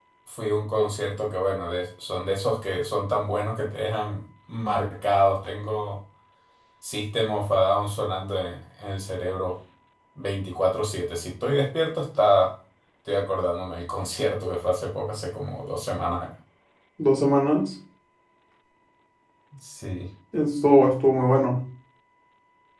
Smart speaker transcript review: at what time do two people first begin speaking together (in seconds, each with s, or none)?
none